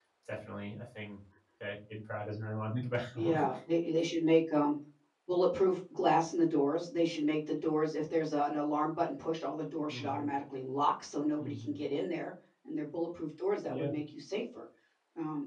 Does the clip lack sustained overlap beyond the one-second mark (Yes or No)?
Yes